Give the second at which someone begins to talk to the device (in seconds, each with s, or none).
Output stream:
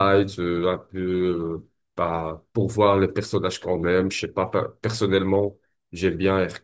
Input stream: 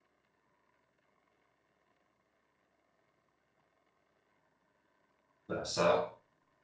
5.5 s